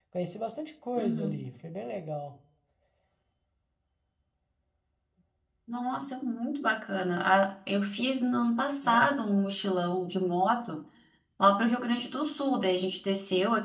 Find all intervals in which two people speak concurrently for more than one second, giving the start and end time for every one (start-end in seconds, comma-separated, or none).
none